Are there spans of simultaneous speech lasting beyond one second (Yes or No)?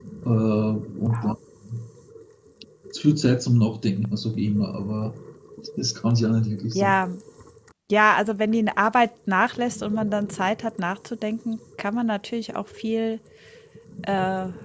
No